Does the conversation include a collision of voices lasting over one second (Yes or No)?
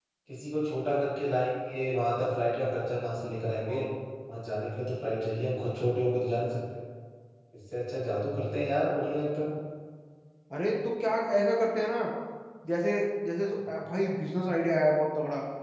No